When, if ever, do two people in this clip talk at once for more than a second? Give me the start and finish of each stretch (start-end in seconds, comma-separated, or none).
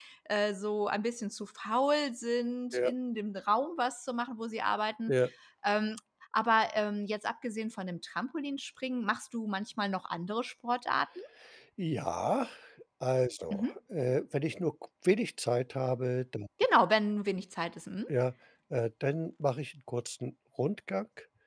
none